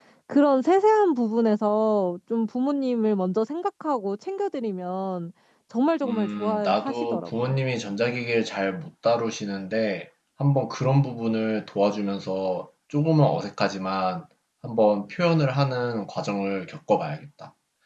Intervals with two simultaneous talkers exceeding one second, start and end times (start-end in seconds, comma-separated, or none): 6.0-7.5